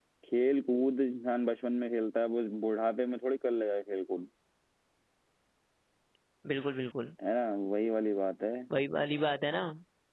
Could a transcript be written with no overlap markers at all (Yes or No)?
Yes